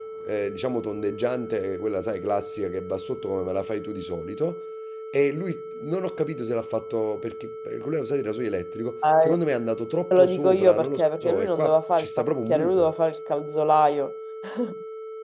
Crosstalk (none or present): present